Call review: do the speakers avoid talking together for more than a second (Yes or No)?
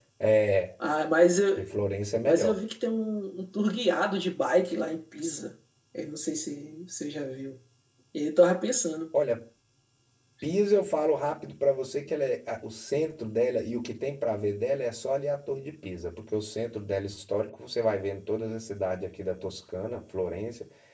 Yes